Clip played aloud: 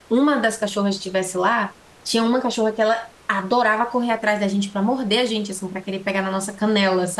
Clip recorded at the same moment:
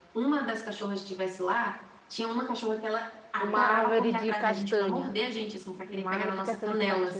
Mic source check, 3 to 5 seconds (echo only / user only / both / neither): both